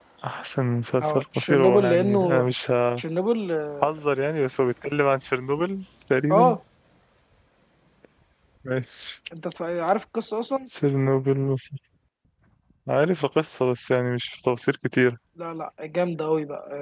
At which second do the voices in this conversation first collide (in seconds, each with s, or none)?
1.0 s